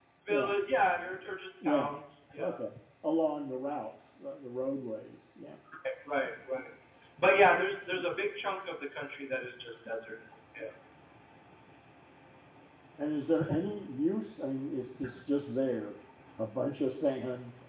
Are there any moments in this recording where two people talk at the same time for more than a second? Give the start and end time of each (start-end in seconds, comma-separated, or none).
none